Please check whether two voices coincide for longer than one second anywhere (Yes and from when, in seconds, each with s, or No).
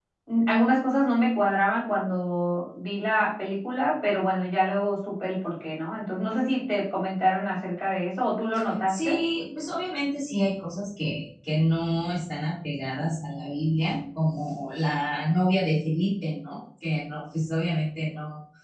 No